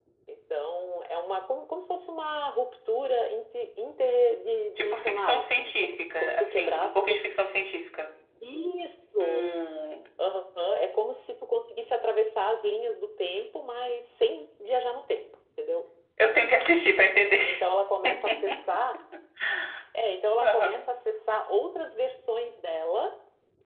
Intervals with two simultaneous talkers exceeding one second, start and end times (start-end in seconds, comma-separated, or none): 4.8-7.2